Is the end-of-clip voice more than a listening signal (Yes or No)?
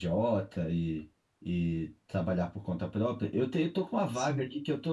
No